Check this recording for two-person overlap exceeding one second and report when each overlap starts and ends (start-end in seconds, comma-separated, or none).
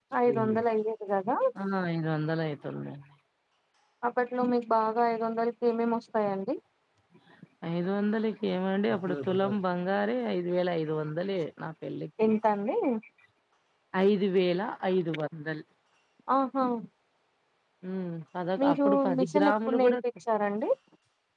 18.6-20.0